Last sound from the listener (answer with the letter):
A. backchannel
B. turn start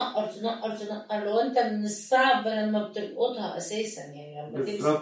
B